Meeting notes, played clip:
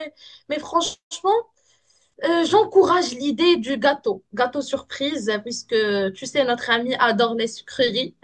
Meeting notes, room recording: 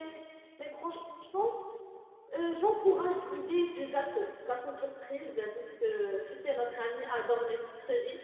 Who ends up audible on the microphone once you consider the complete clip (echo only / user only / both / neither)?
echo only